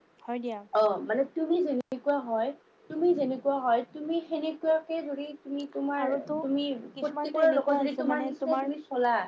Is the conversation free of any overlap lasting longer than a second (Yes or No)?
No